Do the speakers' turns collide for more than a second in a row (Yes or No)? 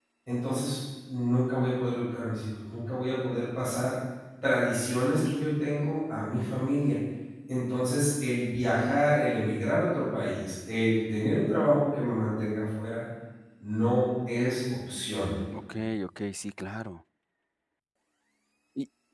No